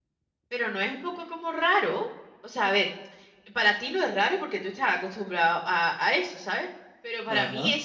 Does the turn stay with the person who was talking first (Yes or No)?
Yes